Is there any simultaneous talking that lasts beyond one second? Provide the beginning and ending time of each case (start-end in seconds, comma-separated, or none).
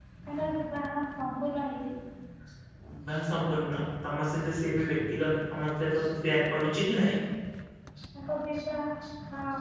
none